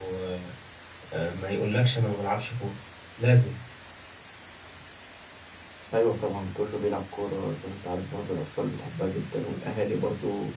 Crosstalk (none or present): none